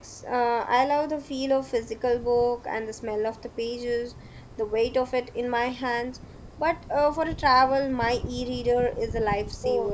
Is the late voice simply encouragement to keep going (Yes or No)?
No